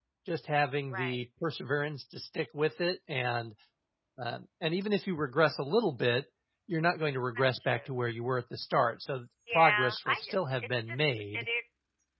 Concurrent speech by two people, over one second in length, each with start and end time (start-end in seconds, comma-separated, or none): 9.5-11.5